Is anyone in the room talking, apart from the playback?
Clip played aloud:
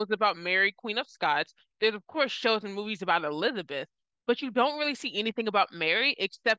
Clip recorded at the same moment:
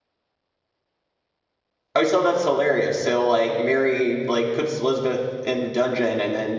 Yes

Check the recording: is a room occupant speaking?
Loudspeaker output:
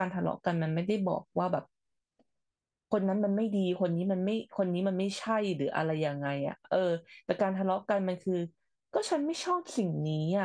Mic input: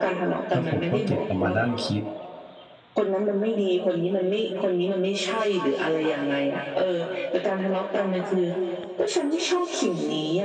Yes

